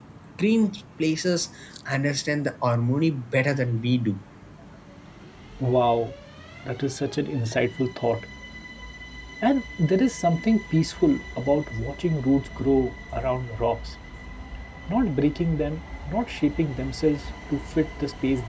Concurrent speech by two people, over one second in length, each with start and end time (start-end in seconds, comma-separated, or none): none